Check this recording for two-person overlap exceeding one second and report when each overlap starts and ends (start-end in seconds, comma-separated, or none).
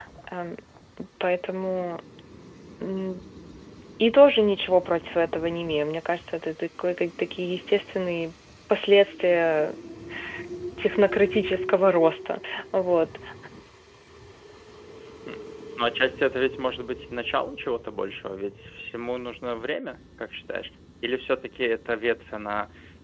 none